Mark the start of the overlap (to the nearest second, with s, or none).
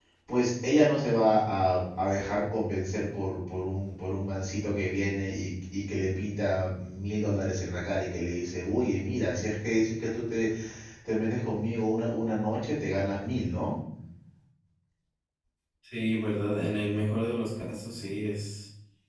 none